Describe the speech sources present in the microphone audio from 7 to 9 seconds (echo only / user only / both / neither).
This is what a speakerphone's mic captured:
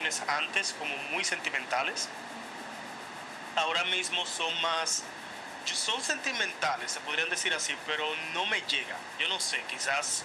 echo only